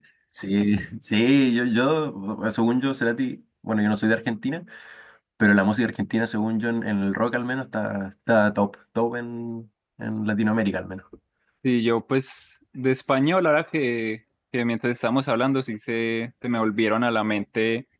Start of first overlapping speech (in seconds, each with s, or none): none